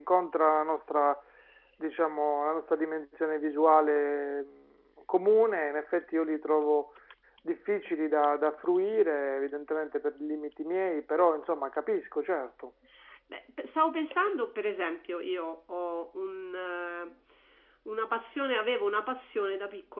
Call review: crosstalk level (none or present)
none